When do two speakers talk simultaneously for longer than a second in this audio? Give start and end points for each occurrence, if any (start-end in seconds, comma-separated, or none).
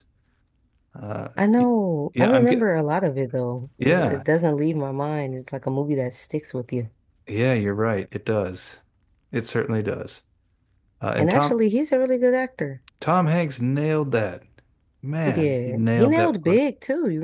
15.2-16.6